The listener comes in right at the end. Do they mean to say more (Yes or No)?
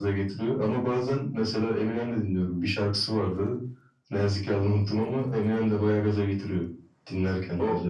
Yes